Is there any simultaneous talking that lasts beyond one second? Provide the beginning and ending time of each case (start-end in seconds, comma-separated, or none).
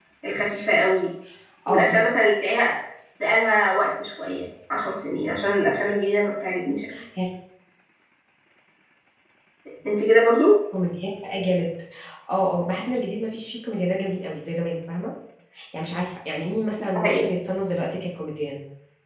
none